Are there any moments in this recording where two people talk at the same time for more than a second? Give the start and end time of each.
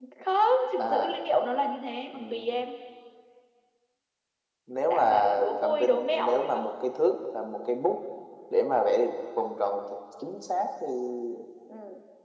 4.9-6.7

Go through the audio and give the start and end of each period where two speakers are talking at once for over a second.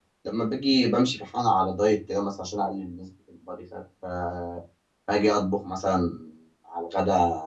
none

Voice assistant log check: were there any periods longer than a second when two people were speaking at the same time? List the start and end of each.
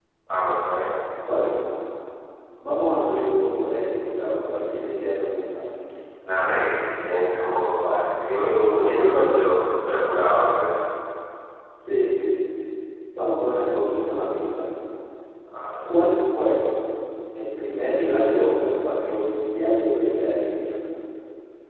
none

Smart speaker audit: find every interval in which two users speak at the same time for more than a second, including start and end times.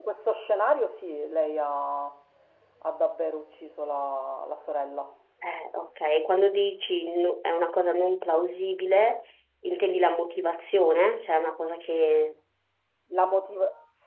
none

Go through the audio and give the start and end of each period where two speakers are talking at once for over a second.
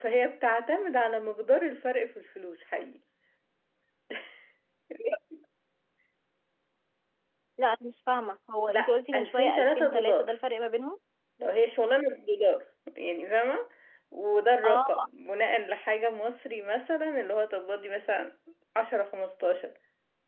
8.7-10.3

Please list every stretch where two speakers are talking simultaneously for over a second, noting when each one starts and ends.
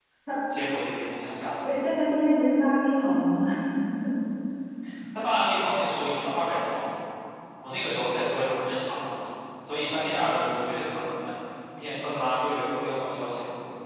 none

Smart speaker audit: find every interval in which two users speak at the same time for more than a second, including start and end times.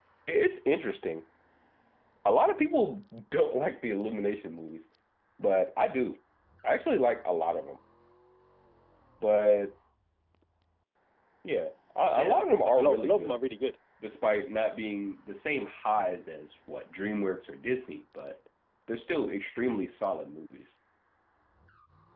12.2-13.4

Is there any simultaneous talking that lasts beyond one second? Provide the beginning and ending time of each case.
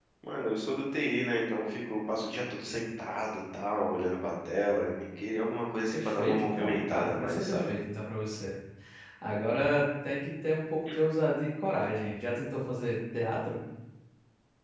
5.9-7.7

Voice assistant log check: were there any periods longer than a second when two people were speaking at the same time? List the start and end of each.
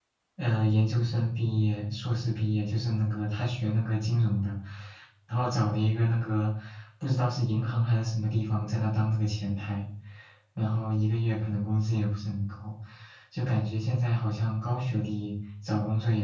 none

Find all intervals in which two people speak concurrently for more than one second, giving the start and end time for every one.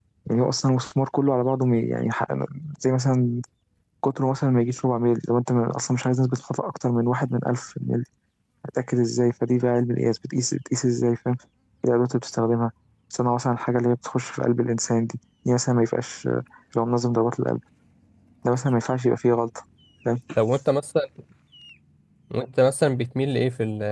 none

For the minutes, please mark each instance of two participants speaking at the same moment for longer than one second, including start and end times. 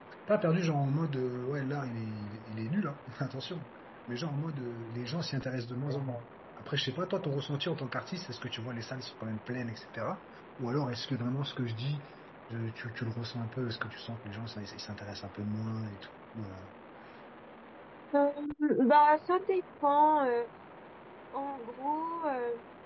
none

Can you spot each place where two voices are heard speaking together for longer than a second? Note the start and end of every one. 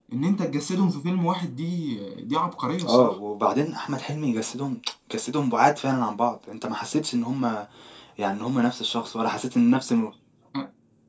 none

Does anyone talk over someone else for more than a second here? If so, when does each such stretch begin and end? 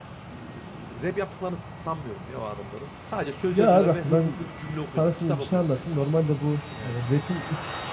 3.5-6.1

